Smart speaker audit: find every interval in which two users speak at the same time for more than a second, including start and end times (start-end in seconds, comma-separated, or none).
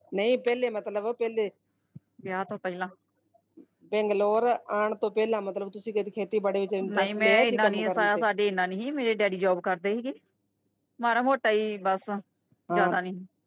6.9-8.2